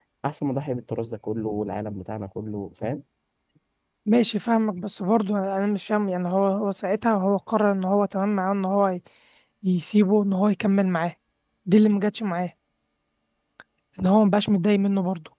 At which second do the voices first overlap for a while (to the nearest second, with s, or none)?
none